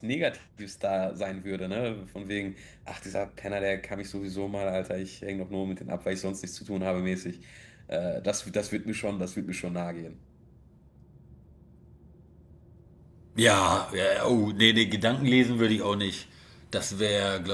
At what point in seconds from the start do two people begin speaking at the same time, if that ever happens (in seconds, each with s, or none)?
none